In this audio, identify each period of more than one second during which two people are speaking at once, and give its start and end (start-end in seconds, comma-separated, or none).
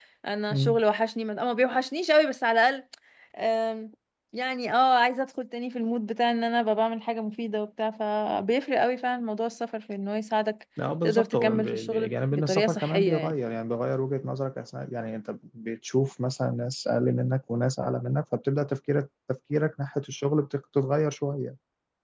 11.0-13.4